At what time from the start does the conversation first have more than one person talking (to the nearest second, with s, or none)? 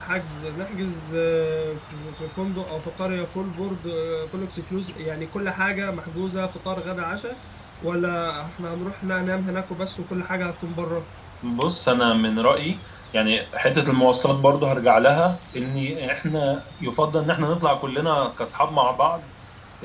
none